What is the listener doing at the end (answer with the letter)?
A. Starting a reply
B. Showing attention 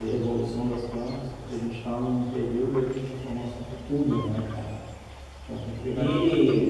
A